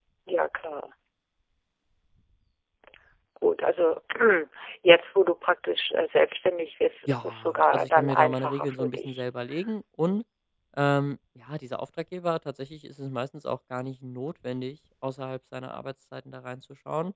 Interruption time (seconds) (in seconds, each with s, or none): 7.1 s